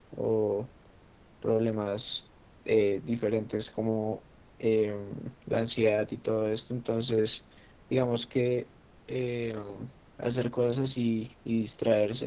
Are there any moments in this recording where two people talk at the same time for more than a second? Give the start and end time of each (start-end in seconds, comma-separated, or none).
none